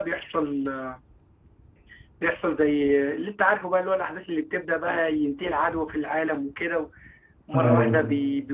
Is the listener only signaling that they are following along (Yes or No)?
Yes